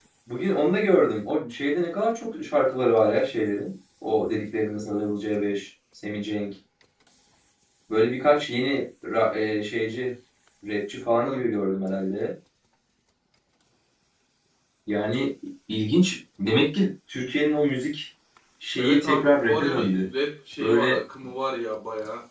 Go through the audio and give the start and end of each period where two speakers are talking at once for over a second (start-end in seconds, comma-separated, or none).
18.8-20.1